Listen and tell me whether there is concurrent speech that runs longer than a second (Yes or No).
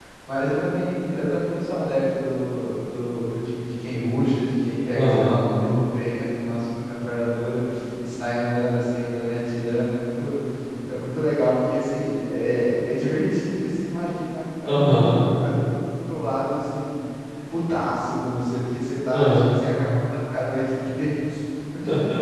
No